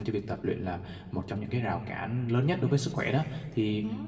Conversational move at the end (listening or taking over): listening